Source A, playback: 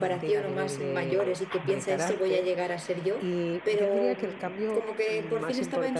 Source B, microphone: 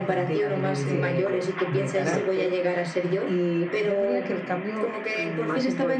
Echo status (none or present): present